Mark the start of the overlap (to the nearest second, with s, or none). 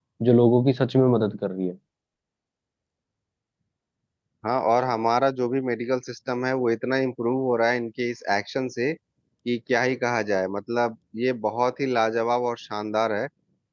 none